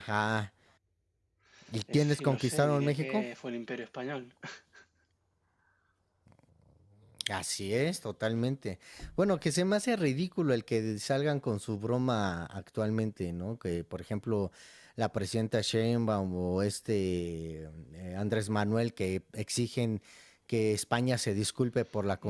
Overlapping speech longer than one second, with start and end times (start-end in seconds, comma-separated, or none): 1.9-3.2